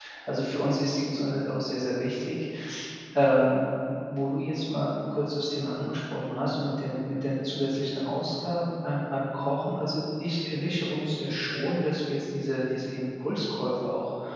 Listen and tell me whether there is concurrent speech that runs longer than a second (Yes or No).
No